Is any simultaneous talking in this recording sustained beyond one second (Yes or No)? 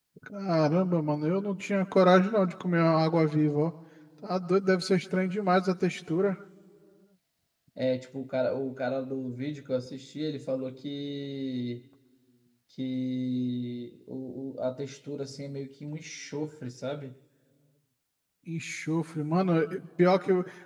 No